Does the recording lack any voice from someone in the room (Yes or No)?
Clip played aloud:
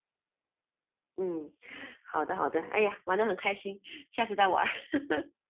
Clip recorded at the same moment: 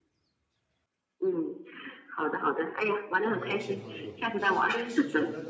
No